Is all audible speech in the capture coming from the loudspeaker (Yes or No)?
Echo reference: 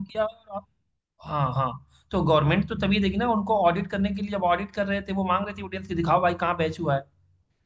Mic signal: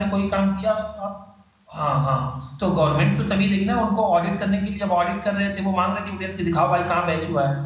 Yes